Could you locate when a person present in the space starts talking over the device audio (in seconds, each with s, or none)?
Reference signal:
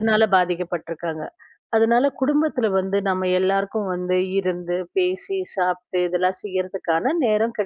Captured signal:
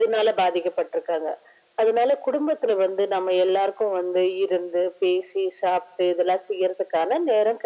none